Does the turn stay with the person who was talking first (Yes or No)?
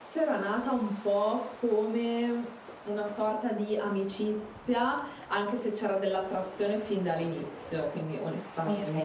No